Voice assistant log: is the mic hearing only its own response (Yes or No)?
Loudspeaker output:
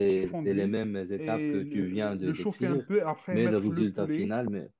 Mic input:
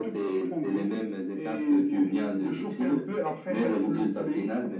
Yes